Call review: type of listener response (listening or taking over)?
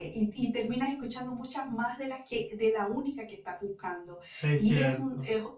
listening